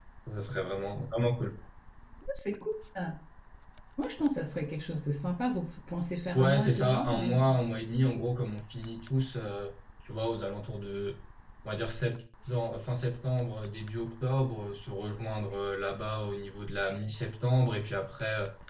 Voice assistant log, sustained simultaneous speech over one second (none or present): present